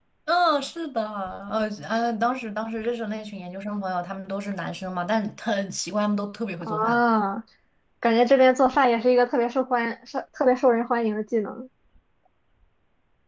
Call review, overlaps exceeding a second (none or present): none